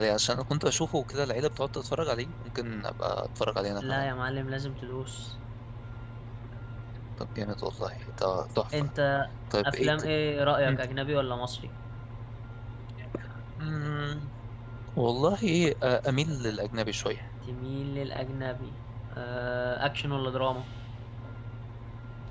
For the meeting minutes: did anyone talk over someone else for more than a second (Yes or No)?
No